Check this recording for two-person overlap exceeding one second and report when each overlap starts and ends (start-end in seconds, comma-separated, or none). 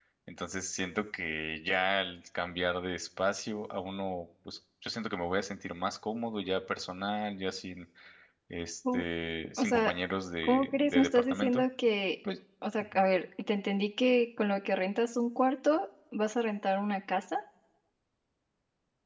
10.4-11.6